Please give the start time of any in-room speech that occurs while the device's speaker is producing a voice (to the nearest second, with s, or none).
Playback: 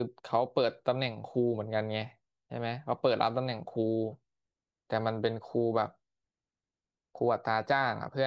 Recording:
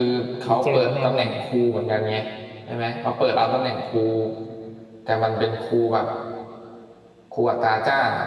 0 s